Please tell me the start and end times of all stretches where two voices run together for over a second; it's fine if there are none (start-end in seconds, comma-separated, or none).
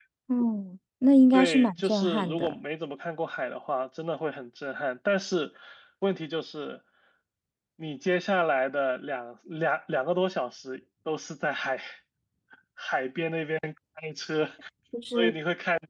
1.3-2.5